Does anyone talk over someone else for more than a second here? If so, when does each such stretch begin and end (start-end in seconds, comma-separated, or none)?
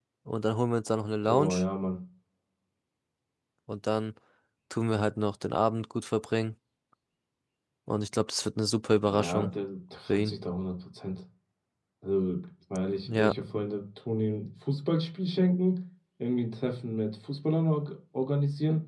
none